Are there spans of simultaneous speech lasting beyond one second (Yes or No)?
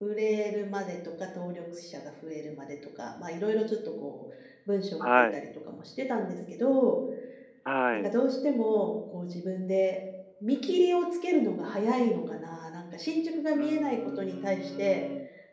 Yes